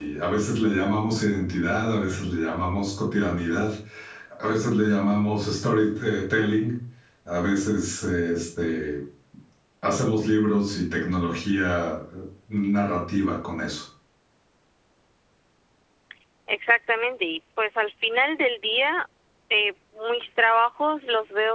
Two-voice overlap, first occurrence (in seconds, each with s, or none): none